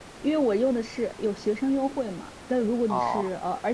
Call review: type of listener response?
listening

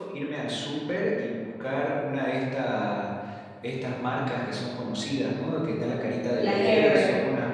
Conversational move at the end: listening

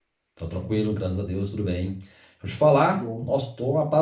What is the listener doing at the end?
listening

